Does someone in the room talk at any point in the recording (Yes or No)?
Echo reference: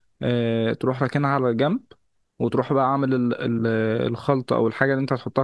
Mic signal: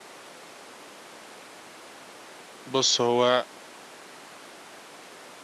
Yes